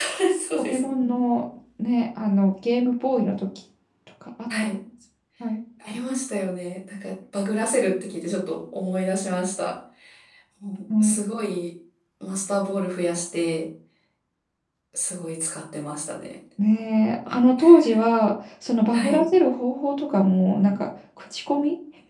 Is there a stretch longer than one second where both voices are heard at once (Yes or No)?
No